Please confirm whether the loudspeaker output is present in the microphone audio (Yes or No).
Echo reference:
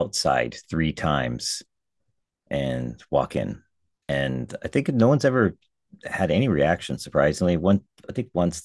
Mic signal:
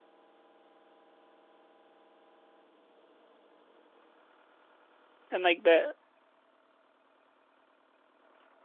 No